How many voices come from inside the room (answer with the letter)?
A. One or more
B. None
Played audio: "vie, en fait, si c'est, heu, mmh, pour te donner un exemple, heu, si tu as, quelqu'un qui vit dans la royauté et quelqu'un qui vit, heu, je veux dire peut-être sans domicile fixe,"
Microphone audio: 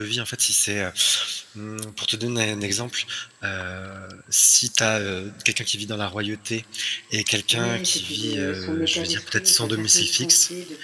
A